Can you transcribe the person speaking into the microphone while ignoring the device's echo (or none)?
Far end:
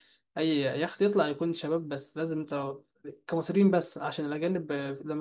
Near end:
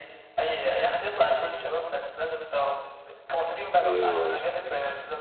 ايوه يا اسطى